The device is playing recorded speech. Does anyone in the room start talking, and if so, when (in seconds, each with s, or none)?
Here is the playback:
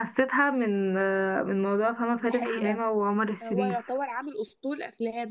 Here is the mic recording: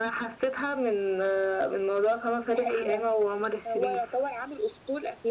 none